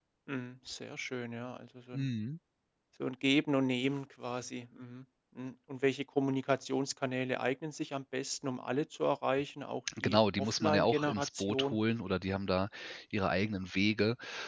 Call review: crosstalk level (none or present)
present